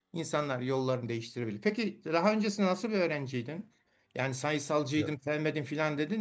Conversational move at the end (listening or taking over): listening